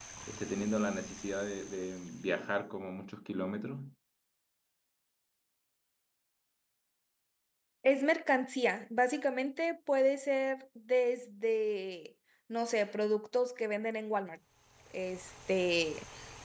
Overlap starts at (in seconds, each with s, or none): none